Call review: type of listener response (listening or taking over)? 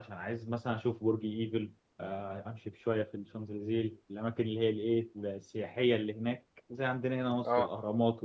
listening